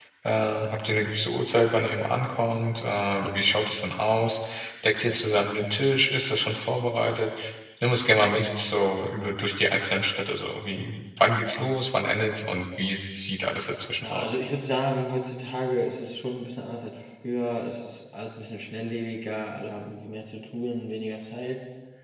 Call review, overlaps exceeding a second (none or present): none